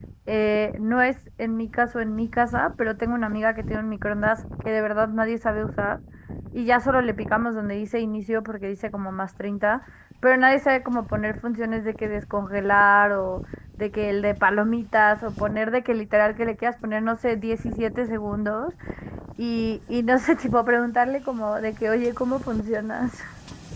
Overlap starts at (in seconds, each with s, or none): none